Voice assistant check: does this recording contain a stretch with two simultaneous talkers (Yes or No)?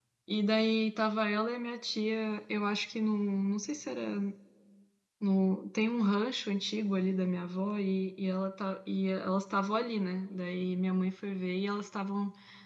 No